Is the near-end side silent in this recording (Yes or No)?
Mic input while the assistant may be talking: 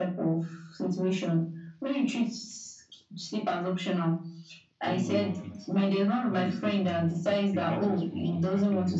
No